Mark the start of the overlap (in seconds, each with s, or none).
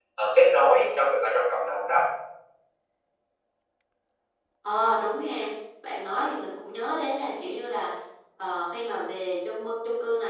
none